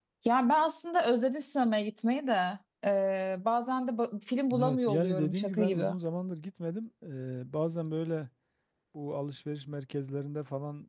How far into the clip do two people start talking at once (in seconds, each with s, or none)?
4.5 s